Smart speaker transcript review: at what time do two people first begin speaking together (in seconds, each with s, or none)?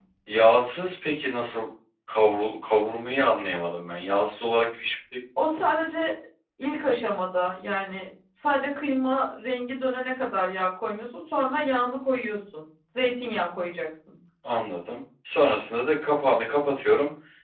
none